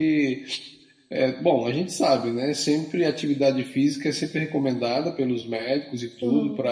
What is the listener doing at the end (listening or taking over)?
listening